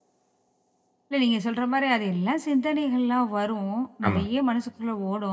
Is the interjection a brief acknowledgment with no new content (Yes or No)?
Yes